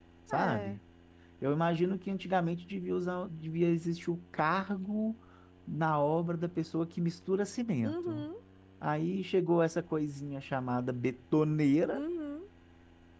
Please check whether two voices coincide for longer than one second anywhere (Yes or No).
No